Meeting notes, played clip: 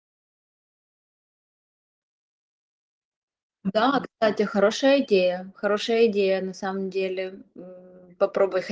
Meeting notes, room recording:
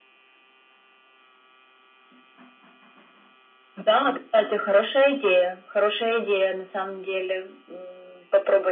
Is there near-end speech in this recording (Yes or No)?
No